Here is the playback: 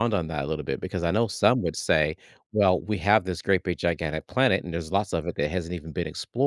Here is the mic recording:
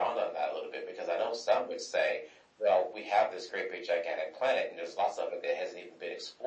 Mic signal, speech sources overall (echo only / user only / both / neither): echo only